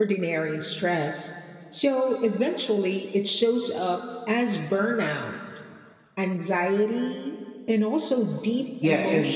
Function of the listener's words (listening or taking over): taking over